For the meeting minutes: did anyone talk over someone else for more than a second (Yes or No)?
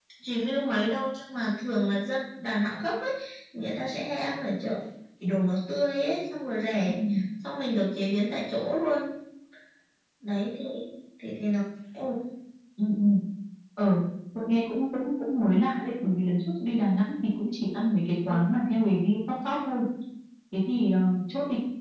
No